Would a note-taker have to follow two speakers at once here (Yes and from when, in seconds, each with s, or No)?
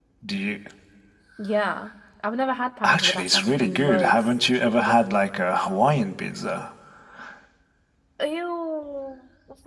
Yes, from 2.8 s